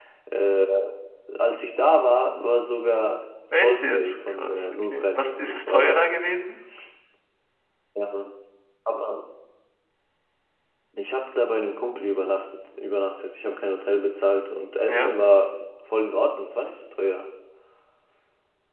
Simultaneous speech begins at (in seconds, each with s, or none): 3.5 s